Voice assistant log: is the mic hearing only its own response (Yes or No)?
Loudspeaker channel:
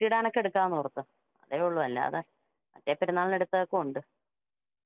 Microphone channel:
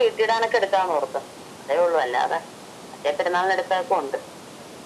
Yes